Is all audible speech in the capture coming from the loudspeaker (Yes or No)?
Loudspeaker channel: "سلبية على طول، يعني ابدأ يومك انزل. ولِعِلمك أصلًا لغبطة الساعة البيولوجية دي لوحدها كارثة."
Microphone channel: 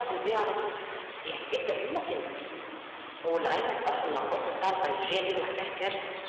Yes